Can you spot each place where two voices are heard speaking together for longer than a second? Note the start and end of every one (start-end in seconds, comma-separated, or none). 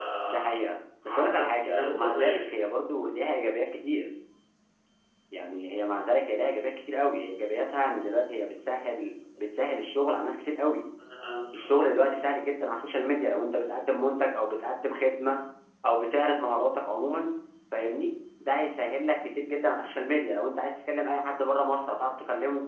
1.1-2.5